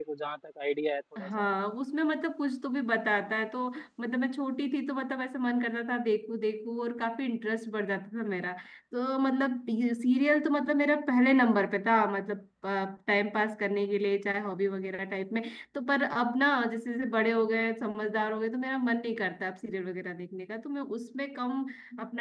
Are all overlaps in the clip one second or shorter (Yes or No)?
Yes